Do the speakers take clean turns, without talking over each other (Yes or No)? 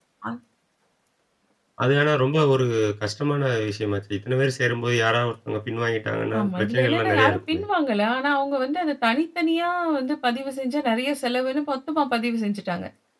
No